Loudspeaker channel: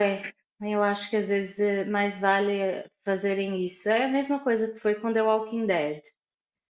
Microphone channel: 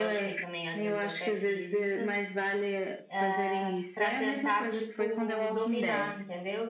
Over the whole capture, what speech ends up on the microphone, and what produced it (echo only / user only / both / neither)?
both